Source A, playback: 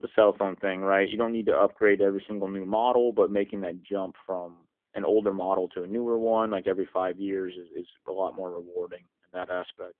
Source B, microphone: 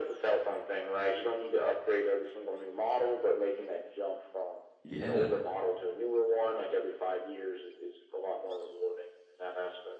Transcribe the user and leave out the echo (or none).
Yeah.